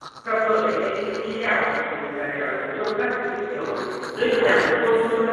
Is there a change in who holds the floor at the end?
No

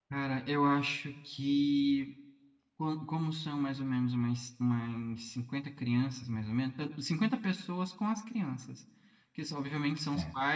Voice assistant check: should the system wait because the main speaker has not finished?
Yes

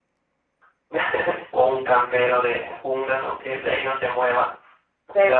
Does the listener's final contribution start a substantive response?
Yes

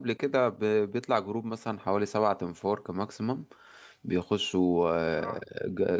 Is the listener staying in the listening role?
Yes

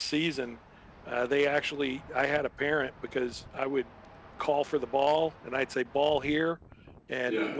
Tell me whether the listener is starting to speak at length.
No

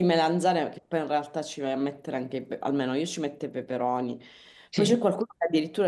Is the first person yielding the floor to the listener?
No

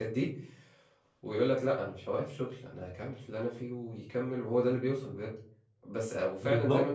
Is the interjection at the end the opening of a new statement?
No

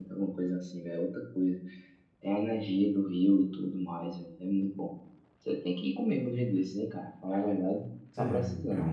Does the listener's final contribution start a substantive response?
Yes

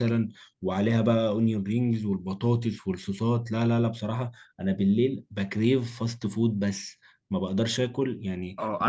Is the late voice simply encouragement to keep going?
No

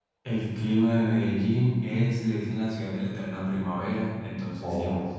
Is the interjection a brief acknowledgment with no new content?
Yes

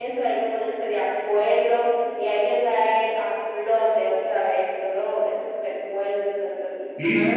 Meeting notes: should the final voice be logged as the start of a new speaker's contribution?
Yes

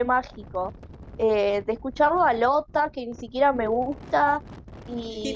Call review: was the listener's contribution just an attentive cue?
Yes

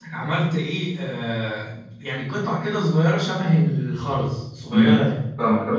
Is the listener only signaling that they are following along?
No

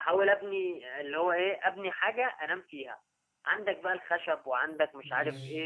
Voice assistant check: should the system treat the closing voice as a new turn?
No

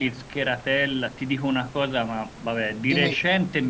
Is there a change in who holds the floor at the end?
No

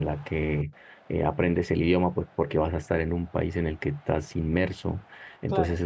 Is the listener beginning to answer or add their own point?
No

